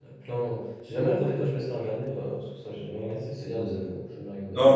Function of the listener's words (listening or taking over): taking over